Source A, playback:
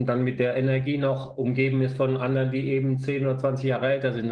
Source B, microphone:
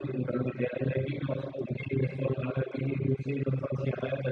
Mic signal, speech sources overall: echo only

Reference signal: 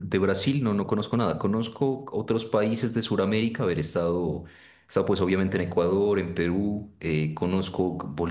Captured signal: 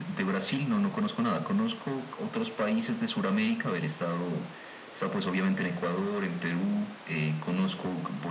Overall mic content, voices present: echo only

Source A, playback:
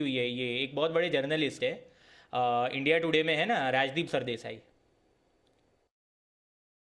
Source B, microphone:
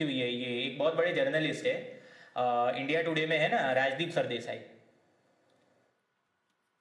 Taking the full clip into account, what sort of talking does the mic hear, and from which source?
echo only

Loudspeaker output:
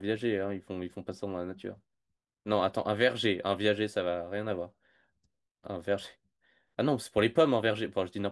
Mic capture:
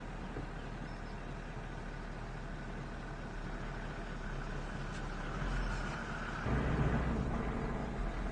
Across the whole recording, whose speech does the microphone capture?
neither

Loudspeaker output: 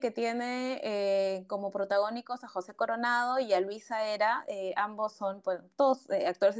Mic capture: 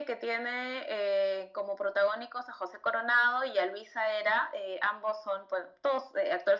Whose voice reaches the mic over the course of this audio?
echo only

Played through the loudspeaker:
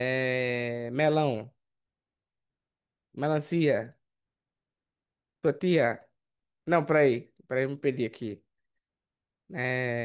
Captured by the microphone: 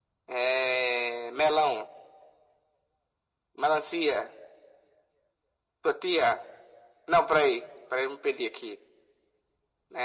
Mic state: echo only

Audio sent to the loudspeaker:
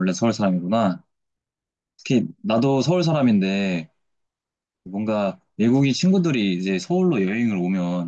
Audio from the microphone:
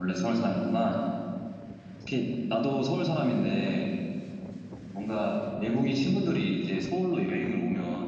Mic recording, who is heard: echo only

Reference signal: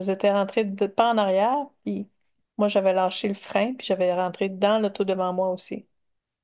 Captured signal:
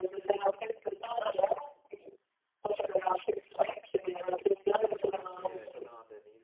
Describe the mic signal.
both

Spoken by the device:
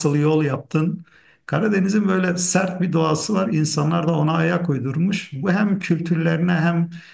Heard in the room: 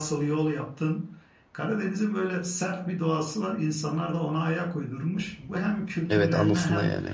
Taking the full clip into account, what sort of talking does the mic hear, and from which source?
both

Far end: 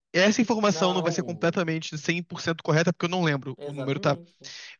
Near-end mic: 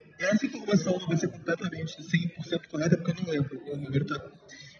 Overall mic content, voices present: echo only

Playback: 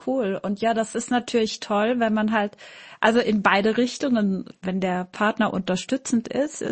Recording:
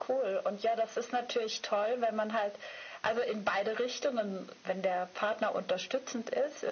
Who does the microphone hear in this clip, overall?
echo only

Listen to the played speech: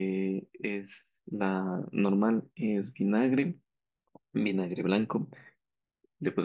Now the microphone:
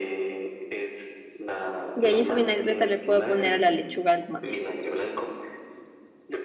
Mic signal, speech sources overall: both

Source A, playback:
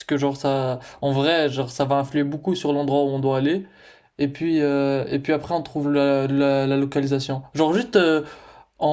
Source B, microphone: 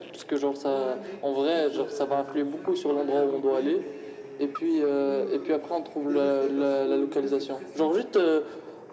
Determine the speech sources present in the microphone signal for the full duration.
both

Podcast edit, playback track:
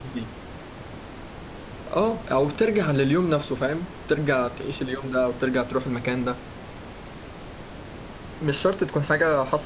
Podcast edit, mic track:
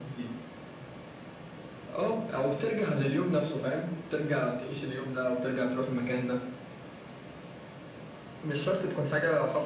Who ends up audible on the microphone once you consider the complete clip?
echo only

